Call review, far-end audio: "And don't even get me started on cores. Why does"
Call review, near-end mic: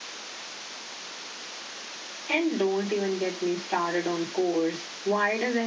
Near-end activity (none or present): none